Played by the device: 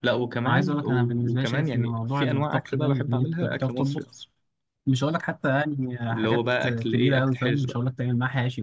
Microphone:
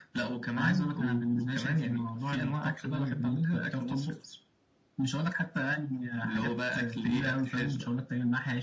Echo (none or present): present